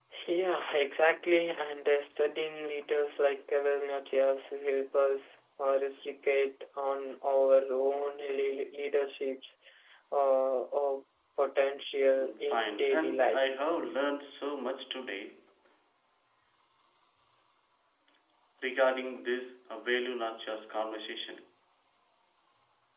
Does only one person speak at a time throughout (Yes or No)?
No